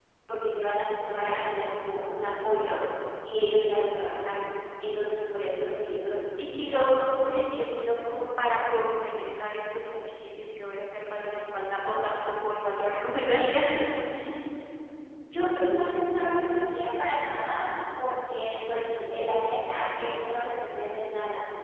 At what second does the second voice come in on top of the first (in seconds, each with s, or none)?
none